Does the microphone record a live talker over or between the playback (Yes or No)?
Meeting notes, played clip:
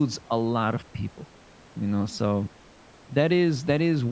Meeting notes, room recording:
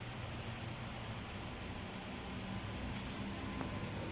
No